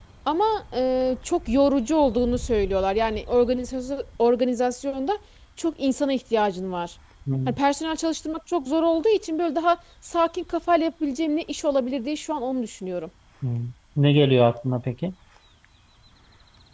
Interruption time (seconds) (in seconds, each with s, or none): none